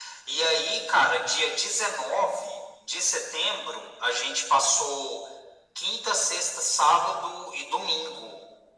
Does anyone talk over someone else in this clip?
No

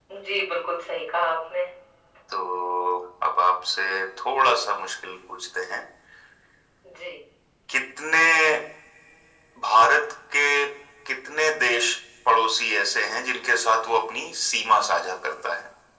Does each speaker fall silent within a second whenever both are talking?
Yes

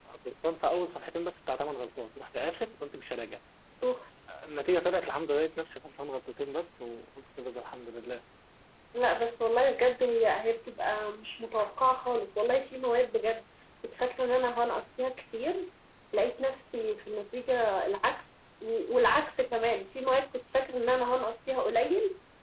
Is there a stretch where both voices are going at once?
No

